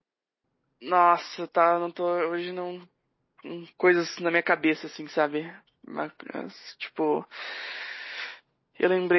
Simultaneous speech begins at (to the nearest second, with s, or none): none